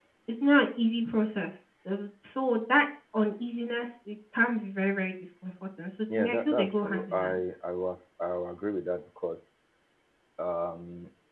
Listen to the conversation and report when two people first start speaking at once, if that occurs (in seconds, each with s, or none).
6.1 s